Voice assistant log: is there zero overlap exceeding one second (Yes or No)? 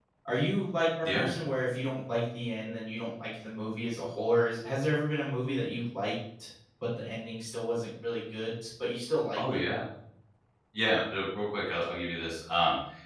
Yes